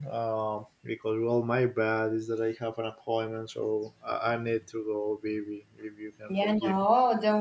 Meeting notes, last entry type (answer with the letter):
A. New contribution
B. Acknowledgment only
A